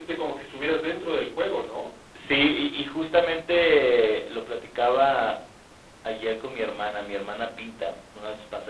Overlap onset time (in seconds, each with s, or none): none